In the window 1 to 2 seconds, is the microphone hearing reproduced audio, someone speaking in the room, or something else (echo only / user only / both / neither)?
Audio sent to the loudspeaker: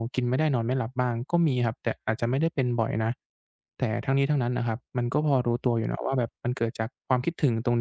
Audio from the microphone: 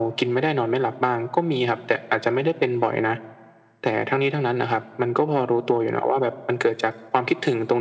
echo only